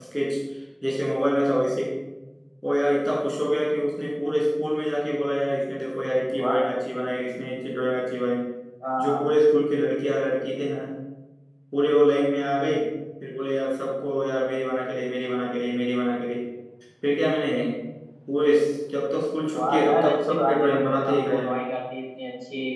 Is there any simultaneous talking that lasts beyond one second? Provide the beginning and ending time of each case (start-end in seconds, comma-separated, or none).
19.5-21.6